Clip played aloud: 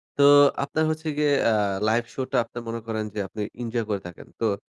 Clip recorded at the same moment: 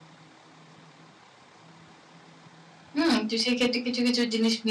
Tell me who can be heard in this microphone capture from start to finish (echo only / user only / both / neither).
user only